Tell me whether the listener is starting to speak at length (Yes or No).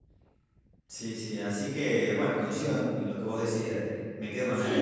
Yes